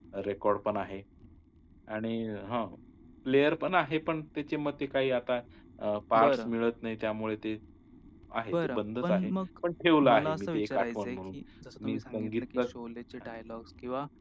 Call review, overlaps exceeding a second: present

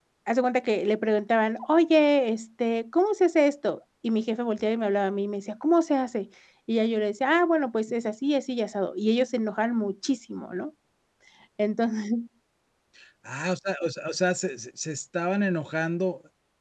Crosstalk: none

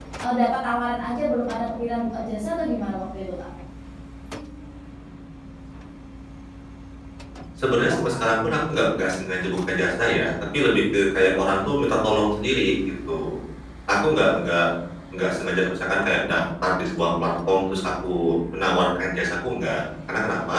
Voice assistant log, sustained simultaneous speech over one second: none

